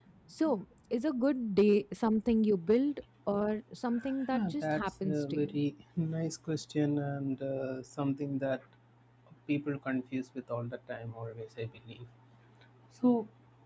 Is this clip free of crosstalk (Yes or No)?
No